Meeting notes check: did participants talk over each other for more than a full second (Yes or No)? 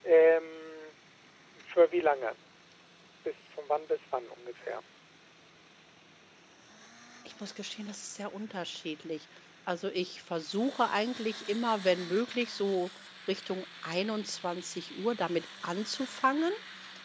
No